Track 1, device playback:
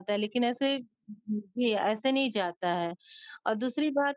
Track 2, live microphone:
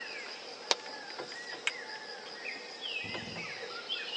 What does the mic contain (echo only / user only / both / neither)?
neither